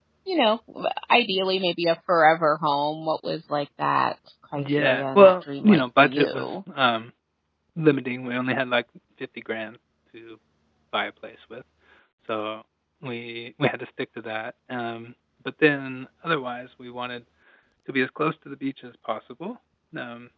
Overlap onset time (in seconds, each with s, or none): 4.5 s